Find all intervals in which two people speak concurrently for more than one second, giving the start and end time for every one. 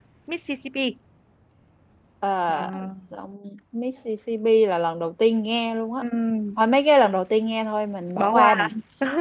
none

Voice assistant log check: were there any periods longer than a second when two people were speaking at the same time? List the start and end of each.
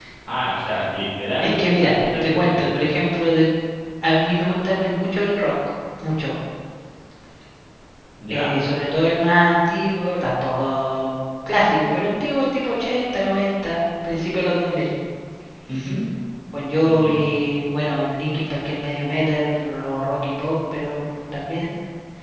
1.4-2.7

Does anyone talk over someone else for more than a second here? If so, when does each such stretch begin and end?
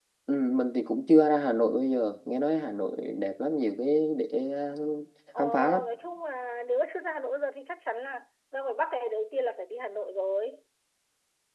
none

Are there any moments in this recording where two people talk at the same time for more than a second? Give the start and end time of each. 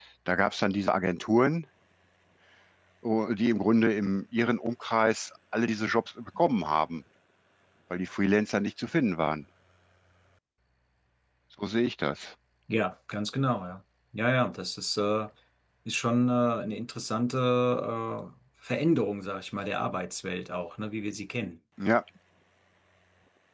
none

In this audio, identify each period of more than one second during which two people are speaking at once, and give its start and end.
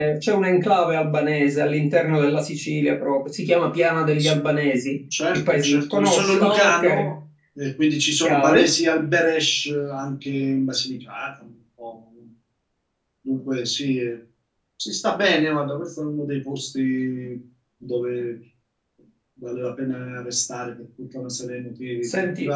5.3-7.1

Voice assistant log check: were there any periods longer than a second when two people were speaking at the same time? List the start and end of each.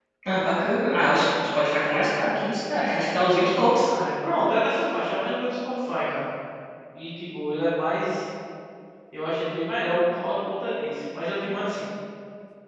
none

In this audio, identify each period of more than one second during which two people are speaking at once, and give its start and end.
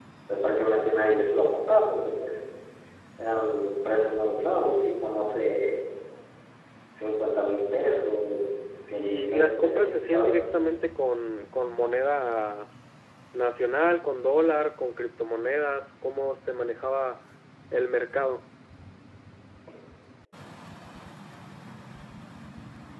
8.9-10.3

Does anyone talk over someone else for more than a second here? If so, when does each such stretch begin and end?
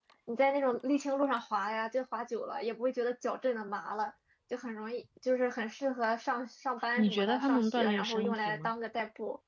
7.0-8.7

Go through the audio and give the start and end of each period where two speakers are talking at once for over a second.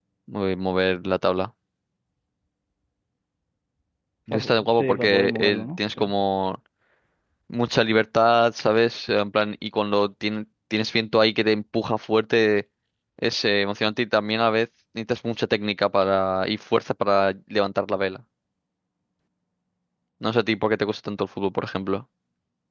4.3-6.0

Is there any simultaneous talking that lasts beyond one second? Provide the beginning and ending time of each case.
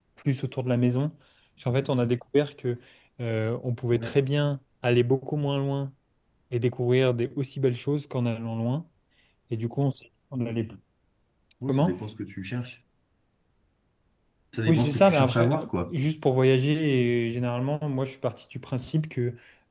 14.7-15.9

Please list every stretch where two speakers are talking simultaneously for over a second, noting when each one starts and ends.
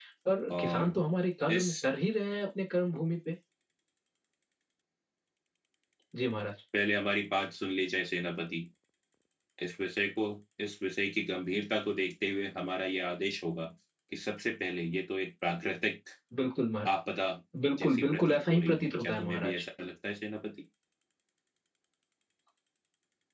17.8-19.5

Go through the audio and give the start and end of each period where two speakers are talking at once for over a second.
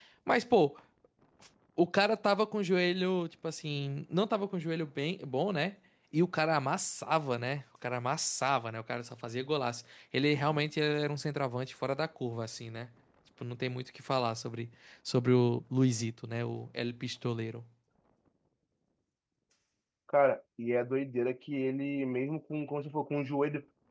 none

